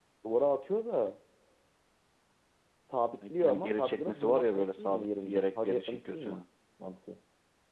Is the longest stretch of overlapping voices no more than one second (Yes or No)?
No